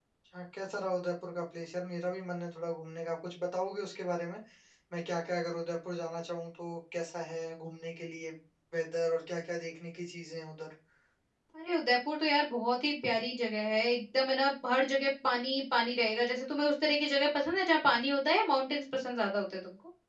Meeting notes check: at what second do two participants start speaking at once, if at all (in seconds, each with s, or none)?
none